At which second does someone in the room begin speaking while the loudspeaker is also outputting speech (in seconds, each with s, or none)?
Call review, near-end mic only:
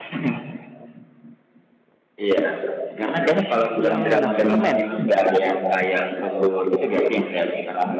3.8 s